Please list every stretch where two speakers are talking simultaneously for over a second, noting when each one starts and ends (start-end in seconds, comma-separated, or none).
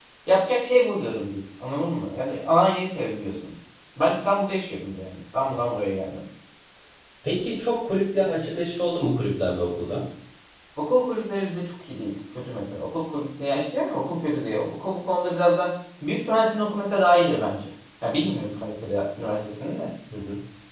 none